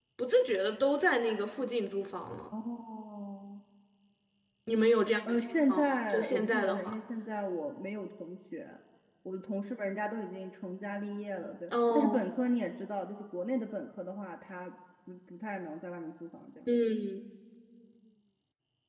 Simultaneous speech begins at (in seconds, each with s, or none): 5.3 s